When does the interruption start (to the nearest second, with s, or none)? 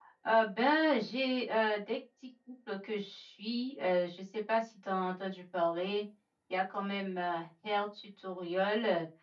none